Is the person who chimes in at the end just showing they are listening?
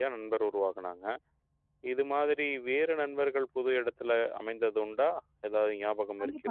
No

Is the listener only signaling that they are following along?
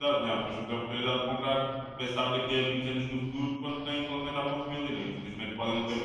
No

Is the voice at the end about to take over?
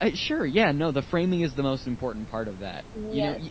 No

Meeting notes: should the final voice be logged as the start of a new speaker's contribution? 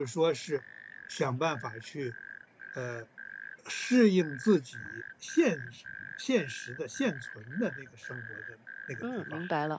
Yes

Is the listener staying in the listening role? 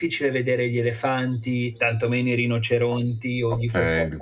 No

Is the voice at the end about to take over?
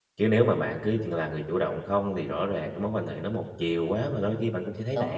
Yes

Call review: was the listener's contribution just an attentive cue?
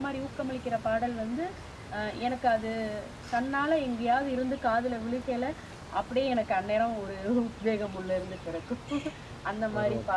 Yes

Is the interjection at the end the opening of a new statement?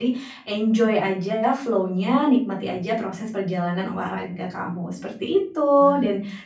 No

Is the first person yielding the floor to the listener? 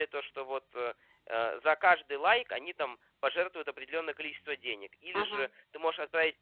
No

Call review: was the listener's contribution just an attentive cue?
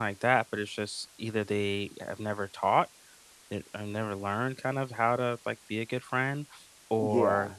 Yes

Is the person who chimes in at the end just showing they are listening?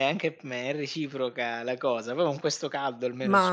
No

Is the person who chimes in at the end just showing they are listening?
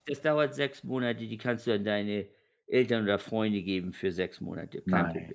No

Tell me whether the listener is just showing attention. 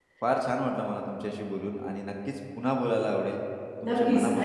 No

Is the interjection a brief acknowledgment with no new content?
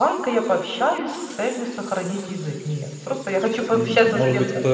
No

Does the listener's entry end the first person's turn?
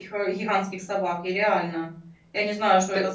No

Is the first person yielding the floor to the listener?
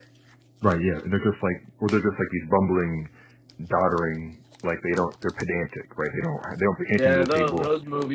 Yes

